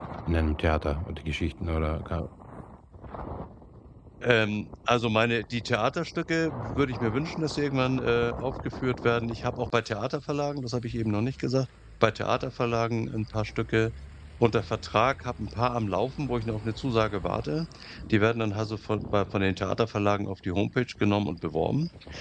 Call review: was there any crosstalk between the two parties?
No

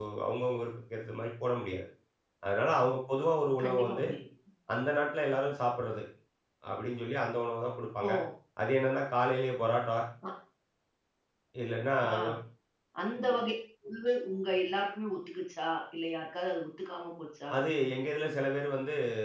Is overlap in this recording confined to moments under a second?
Yes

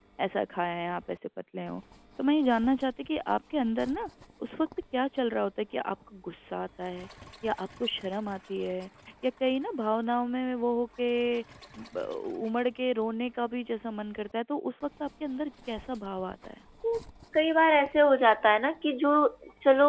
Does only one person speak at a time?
Yes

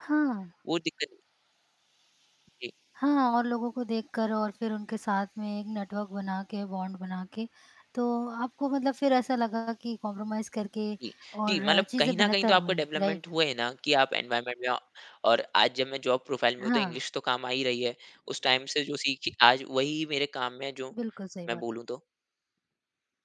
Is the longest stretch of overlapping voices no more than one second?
No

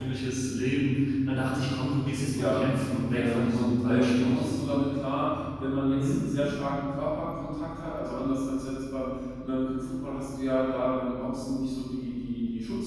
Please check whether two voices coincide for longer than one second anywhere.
Yes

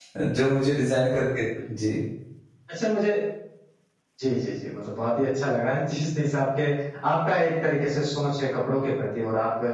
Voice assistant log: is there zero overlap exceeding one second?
Yes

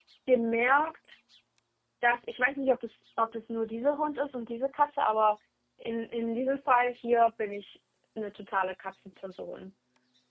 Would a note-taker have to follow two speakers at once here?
No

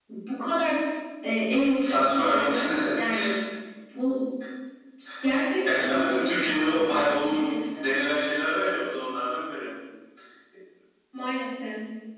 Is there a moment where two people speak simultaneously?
Yes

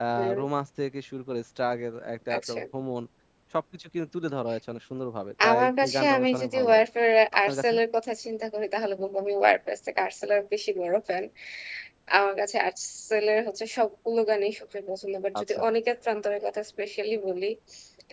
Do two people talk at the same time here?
Yes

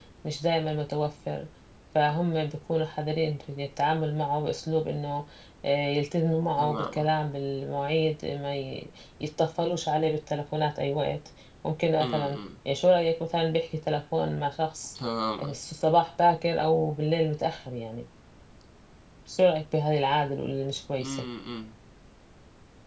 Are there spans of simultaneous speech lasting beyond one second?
No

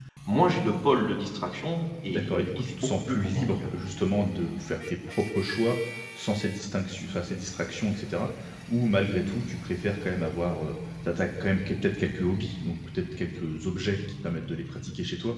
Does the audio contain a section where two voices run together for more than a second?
Yes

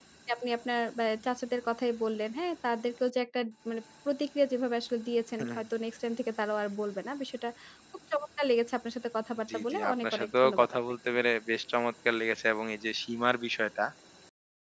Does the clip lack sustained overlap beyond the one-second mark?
No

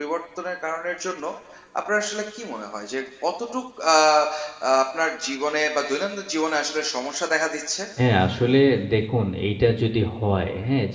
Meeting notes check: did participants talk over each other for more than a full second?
No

